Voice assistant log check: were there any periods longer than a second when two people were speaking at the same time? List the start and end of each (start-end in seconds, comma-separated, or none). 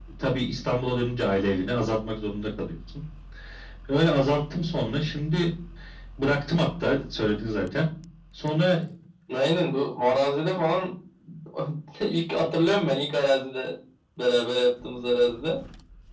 none